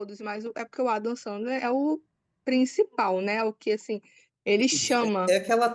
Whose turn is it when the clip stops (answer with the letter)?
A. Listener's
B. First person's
A